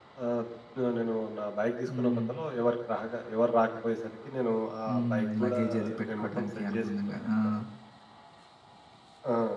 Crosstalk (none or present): present